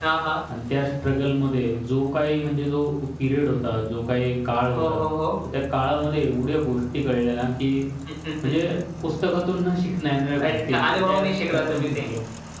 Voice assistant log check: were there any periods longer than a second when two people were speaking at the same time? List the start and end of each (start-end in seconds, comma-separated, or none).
10.4-12.1